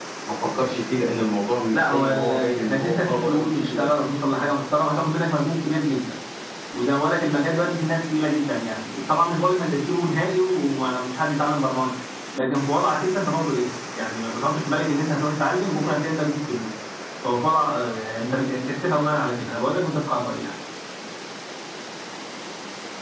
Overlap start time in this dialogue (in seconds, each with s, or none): 1.7 s